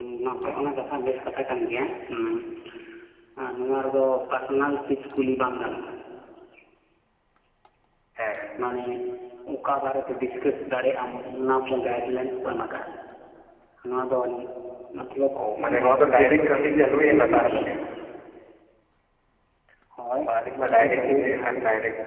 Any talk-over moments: Yes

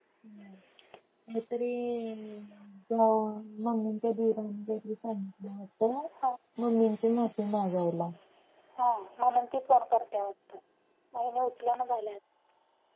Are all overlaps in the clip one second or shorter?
Yes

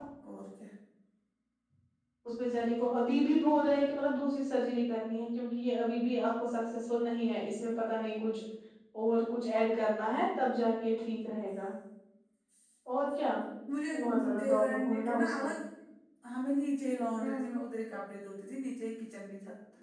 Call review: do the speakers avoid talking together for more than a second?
No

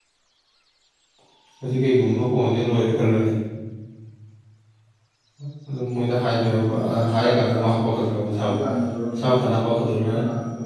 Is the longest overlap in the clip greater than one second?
Yes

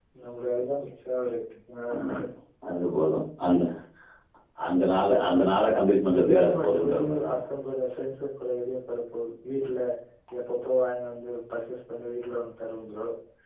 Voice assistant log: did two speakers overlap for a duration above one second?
Yes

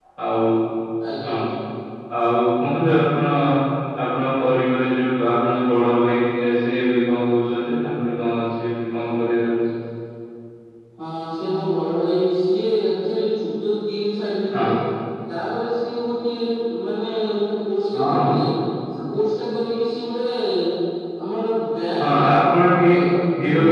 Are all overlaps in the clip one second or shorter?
Yes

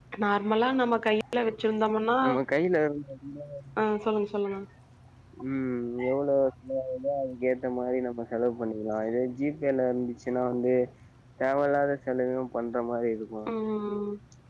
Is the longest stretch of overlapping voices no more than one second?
Yes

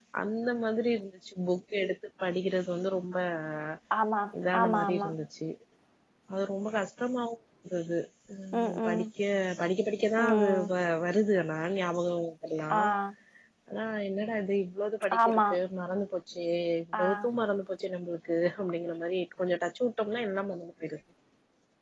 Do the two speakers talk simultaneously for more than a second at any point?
No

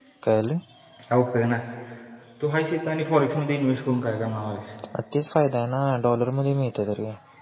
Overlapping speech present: No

